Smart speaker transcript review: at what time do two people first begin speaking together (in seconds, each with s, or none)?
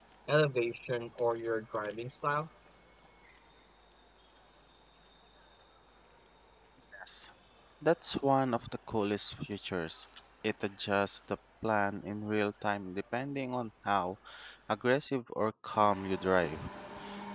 none